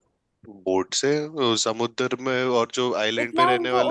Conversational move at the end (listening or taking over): taking over